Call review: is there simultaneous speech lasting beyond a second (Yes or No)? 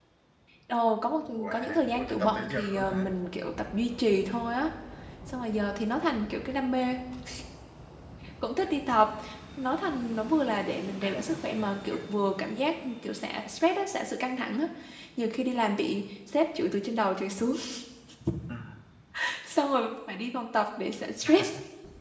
Yes